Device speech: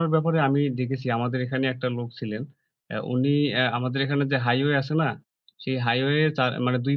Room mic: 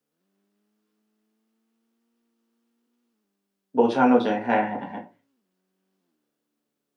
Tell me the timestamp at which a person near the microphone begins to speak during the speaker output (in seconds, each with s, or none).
3.8 s